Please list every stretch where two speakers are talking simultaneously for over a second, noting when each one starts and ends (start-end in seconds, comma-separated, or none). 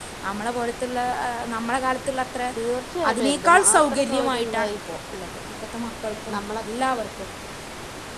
3.1-4.8